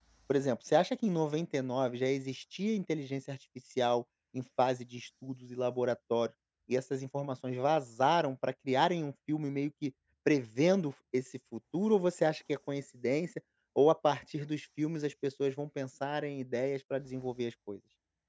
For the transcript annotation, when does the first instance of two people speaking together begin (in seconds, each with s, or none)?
none